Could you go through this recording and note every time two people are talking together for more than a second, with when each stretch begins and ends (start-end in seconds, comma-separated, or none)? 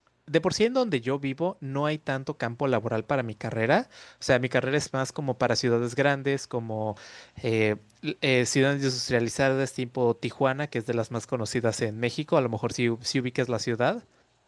none